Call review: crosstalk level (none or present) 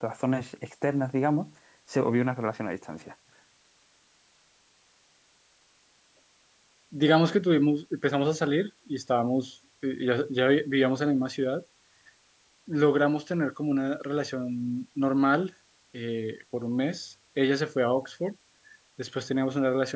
none